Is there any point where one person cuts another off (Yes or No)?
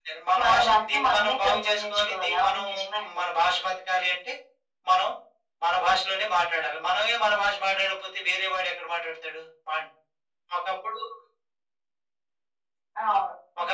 Yes